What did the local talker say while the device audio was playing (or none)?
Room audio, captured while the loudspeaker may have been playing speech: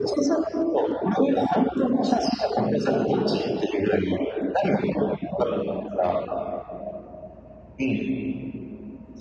none